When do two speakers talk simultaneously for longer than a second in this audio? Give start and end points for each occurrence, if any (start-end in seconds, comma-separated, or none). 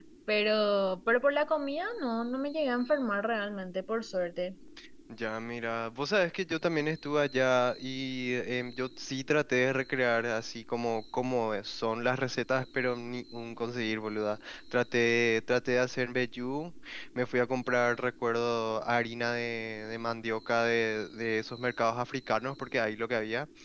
none